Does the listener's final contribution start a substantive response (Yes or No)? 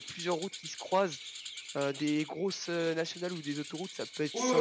Yes